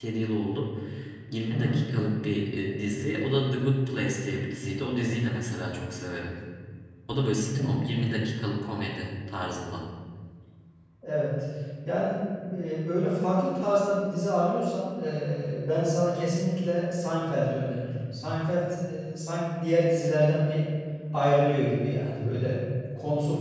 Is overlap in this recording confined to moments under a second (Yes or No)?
Yes